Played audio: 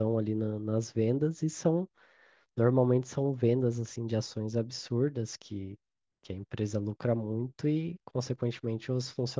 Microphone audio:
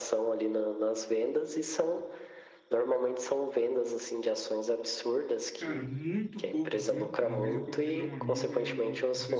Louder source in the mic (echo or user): echo